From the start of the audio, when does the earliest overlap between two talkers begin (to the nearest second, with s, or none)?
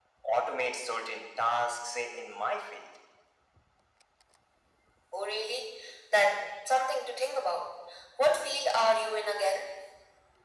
none